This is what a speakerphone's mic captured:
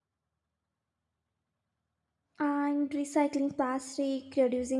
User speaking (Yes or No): Yes